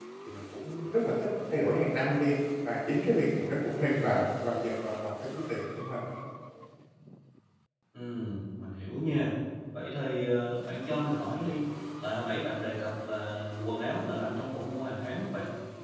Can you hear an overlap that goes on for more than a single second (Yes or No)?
No